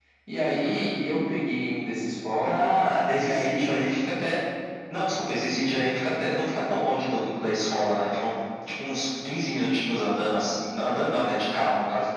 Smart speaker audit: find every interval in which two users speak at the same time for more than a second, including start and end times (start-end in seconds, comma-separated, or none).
none